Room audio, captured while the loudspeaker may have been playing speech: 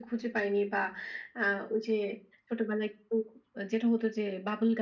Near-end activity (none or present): none